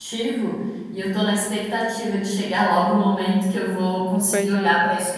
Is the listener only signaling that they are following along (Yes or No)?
Yes